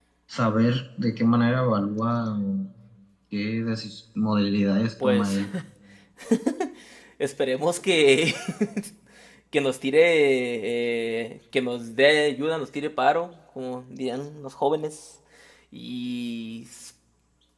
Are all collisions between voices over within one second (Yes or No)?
Yes